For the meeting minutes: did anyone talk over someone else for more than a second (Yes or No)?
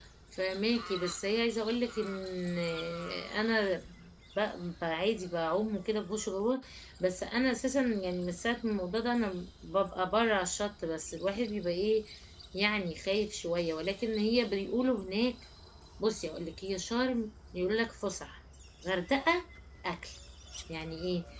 No